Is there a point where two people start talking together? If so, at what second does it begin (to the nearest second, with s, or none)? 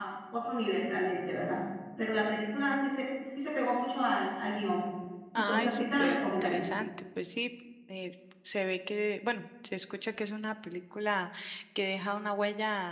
5 s